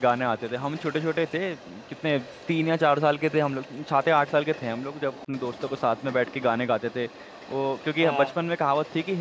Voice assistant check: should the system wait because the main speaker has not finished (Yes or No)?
Yes